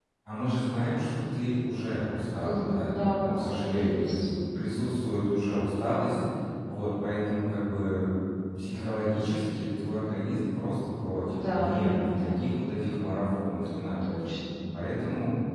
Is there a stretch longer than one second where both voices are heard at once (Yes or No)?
Yes